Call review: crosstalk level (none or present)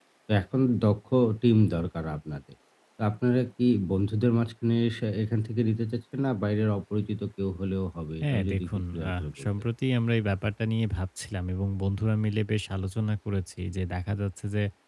present